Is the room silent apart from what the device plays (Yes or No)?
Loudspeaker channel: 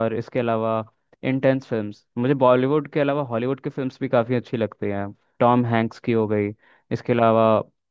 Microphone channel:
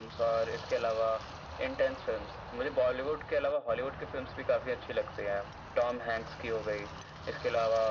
Yes